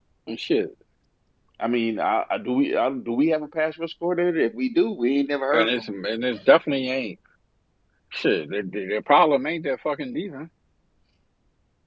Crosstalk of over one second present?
No

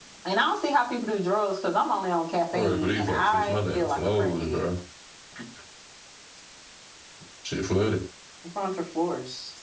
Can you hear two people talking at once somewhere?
Yes, from 2.5 s

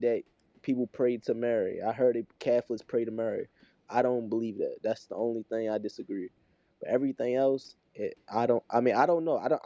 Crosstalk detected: No

